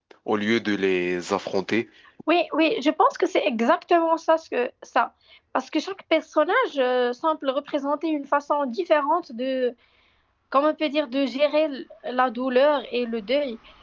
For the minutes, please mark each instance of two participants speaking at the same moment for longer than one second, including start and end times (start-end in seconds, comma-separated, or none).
none